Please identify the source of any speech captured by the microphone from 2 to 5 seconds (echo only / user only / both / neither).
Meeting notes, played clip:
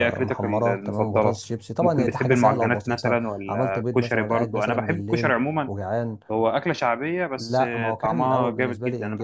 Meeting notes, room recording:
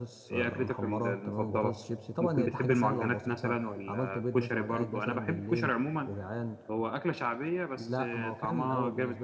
echo only